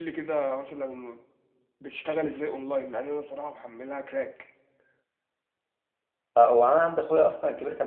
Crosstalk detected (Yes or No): No